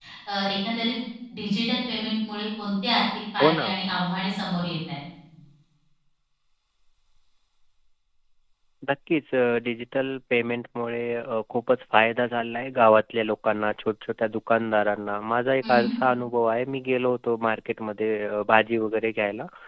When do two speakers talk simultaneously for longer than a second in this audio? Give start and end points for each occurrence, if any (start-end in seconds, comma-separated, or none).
none